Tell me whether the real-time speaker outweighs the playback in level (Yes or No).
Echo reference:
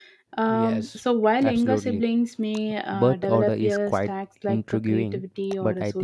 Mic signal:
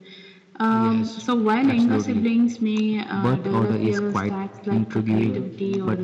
No